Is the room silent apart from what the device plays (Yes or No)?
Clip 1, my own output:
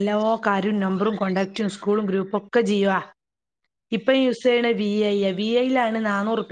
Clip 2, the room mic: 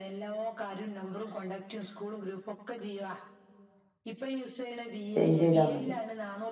No